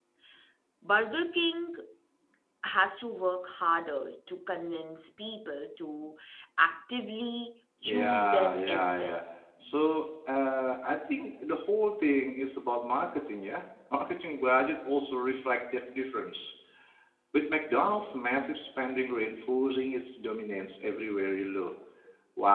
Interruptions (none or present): present